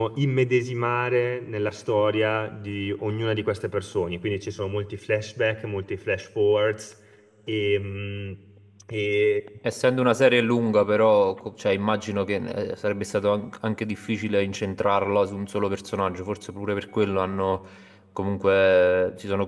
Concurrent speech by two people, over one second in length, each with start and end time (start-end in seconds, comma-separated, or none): none